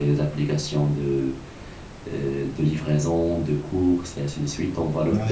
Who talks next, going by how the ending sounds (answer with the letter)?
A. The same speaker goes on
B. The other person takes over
B